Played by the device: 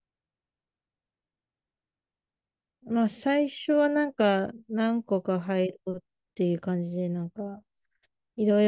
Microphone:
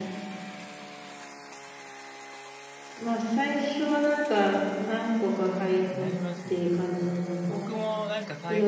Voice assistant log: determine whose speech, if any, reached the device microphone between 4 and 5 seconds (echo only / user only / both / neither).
echo only